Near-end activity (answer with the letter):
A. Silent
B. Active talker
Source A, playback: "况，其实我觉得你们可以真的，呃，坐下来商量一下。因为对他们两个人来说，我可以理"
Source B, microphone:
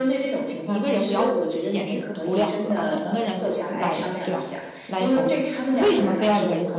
B